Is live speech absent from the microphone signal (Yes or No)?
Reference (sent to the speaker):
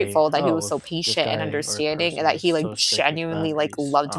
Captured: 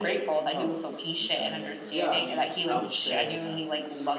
No